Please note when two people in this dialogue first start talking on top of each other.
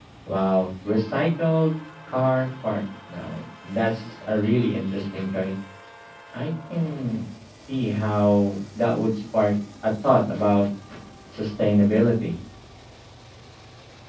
none

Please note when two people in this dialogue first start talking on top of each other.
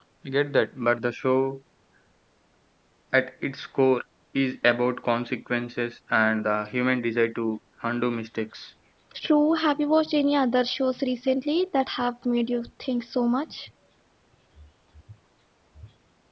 none

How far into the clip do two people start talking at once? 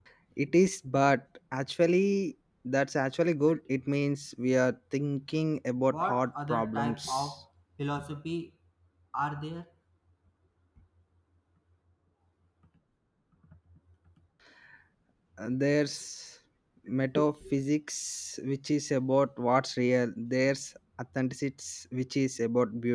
6 s

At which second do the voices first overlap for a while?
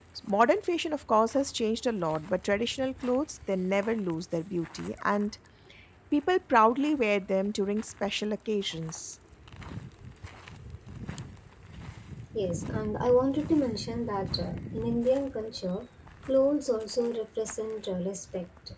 none

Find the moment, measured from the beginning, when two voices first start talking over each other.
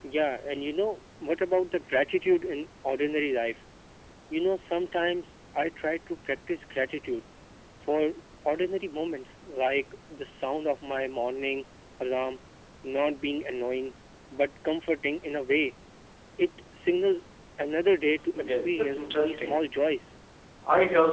18 s

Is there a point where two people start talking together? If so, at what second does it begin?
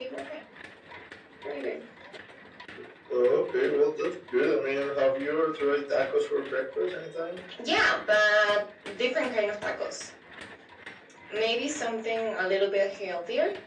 none

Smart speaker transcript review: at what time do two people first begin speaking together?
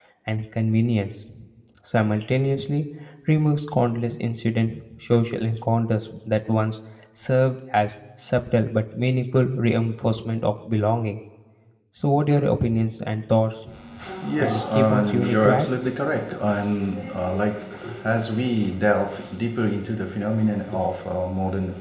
14 s

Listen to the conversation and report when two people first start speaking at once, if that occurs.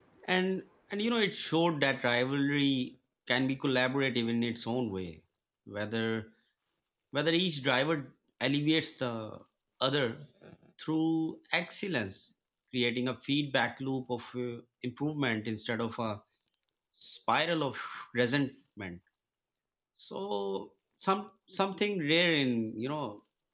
none

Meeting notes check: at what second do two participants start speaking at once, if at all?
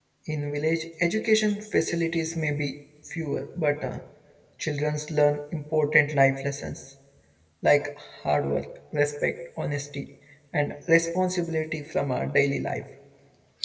none

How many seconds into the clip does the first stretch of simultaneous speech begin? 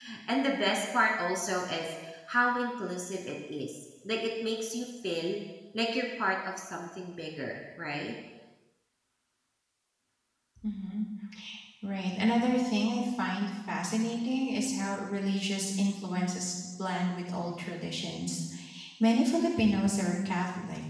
none

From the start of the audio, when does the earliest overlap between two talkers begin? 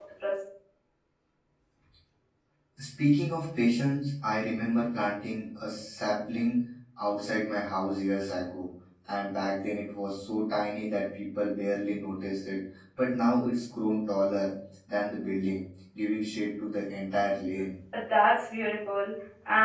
none

